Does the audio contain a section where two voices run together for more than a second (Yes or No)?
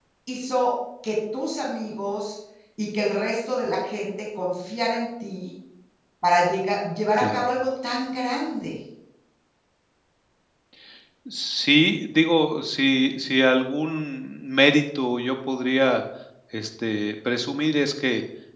No